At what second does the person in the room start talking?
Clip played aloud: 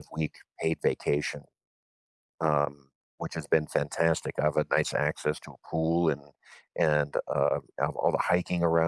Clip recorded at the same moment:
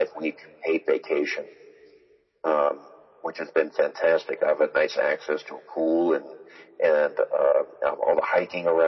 none

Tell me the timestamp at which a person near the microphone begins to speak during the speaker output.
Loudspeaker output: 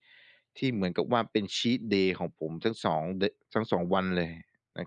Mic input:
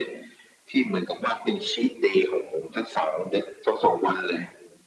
none

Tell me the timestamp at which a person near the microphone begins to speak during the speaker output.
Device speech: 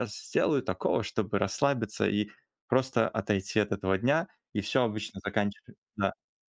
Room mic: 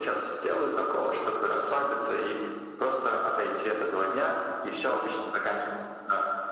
none

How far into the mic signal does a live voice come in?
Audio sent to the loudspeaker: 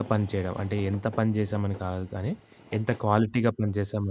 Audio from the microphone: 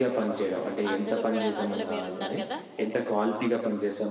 1 s

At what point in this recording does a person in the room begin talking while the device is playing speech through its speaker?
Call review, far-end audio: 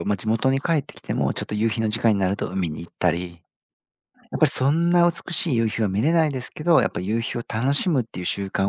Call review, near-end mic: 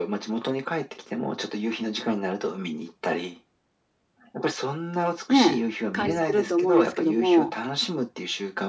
5 s

